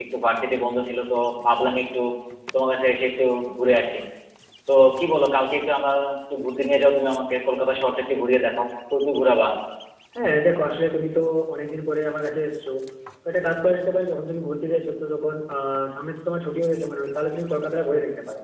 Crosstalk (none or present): none